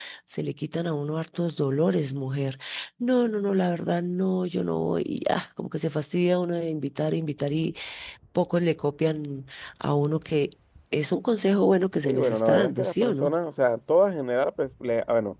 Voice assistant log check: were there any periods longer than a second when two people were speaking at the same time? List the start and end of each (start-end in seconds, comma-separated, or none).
12.0-13.3